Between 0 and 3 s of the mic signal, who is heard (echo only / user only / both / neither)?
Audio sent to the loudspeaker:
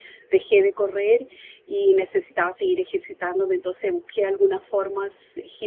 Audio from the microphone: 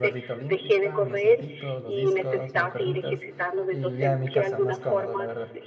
both